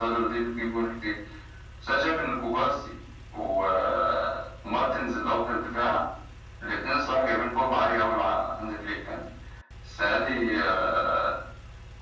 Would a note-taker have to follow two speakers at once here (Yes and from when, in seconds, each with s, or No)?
No